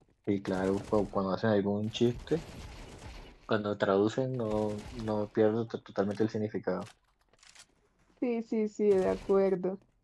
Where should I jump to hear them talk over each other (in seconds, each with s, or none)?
none